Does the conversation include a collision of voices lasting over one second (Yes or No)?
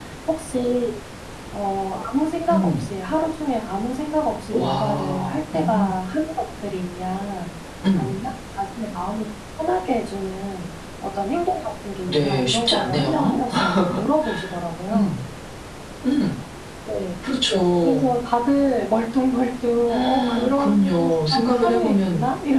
Yes